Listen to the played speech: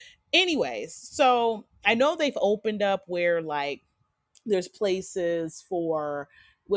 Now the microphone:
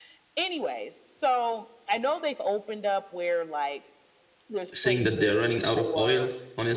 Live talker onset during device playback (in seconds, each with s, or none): 4.7 s